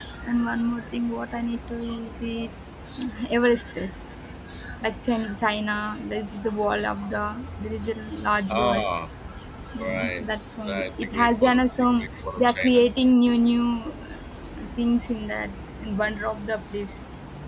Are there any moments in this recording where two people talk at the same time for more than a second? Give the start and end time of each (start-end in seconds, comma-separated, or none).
10.7-12.9